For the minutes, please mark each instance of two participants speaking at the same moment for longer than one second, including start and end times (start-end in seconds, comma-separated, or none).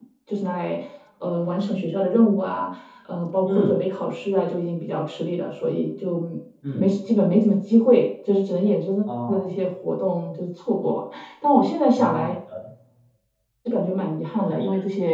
none